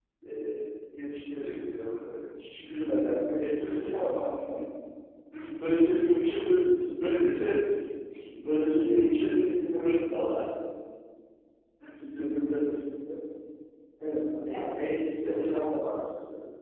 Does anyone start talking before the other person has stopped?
Yes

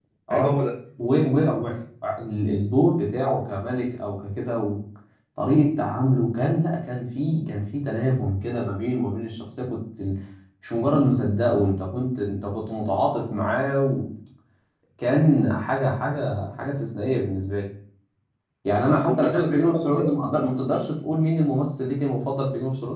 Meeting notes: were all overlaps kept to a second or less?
No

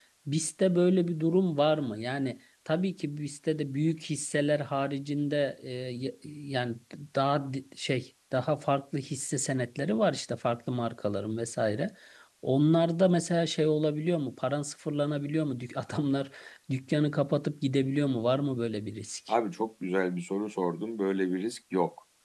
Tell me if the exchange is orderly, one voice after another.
Yes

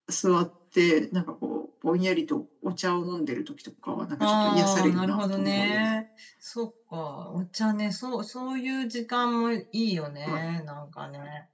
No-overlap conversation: No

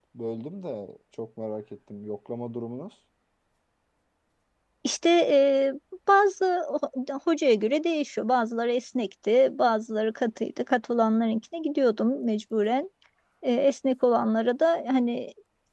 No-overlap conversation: Yes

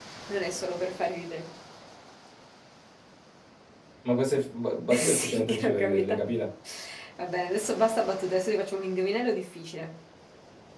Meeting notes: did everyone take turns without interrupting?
No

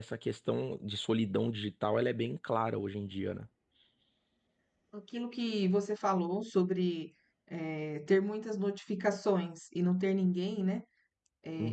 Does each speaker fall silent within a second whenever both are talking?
Yes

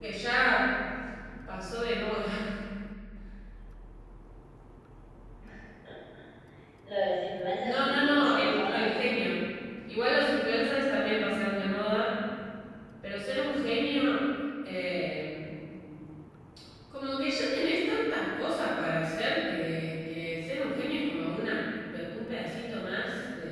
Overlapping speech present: Yes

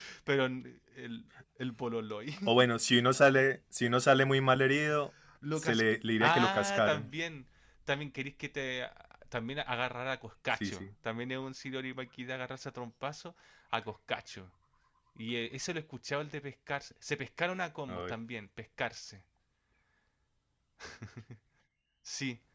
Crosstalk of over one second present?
Yes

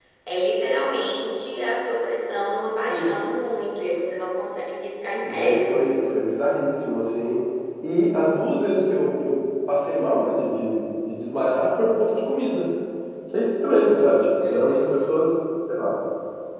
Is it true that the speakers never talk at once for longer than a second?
Yes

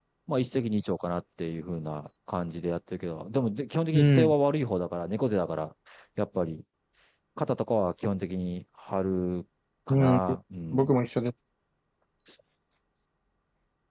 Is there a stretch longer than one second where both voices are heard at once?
No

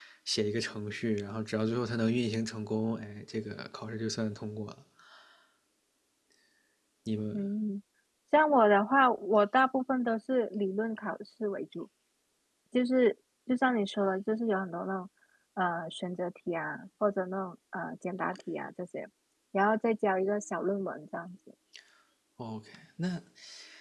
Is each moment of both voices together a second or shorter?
Yes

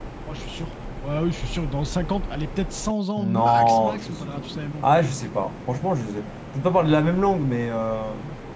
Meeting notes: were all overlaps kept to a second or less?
No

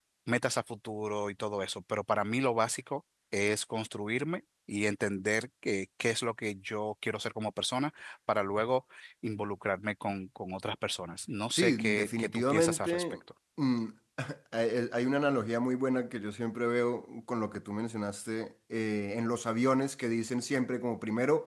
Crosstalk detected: Yes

